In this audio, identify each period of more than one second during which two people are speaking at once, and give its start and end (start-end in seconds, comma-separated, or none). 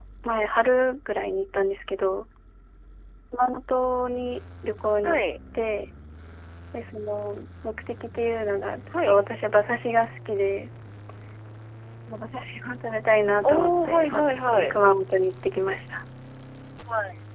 13.4-14.7